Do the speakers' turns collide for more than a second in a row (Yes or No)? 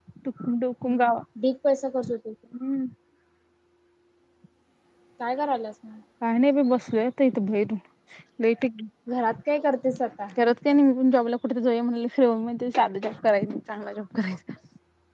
No